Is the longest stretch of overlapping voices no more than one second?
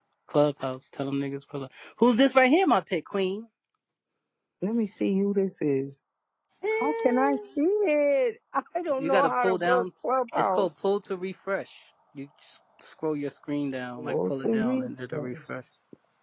No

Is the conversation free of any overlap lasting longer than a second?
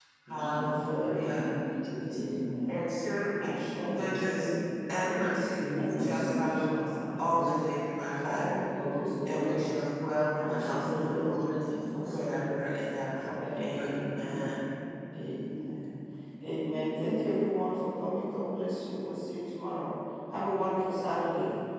No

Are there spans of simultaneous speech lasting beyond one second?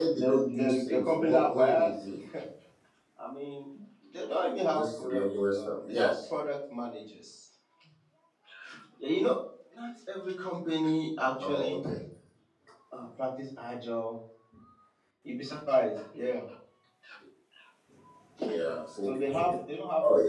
Yes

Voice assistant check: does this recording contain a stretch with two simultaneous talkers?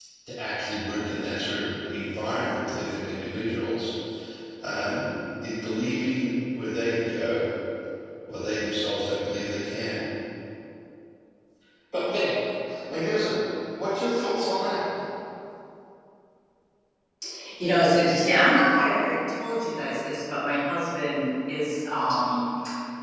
No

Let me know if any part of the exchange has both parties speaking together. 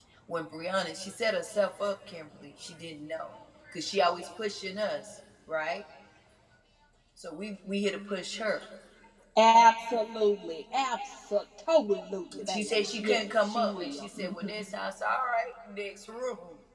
Yes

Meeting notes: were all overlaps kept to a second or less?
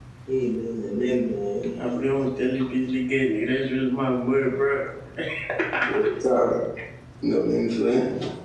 Yes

